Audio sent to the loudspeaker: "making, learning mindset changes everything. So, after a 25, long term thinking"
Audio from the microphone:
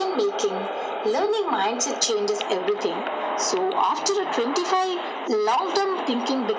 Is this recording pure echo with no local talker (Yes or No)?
Yes